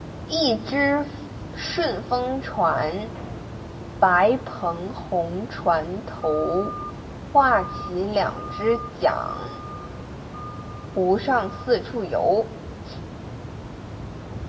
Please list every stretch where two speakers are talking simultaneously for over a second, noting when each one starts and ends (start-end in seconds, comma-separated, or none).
none